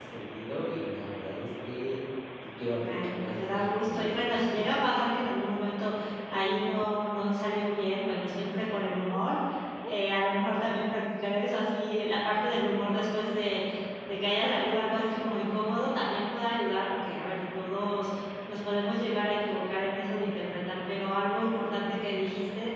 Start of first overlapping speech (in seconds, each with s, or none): 2.8 s